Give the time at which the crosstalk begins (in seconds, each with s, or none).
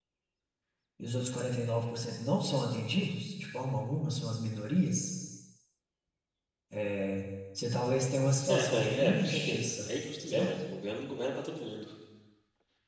8.4 s